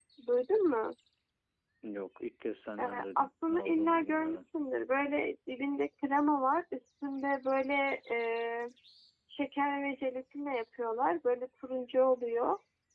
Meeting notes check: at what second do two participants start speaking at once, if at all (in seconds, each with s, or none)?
2.8 s